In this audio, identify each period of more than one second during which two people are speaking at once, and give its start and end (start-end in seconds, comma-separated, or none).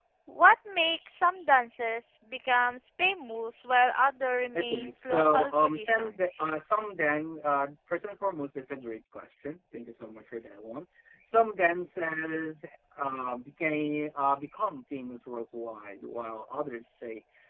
4.5-6.4